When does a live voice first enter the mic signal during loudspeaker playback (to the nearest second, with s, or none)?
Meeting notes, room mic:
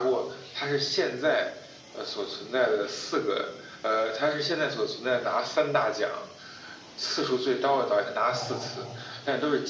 8 s